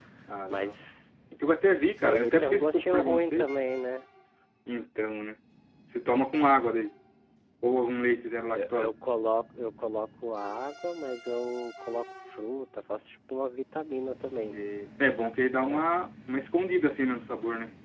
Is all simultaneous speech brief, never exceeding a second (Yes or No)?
No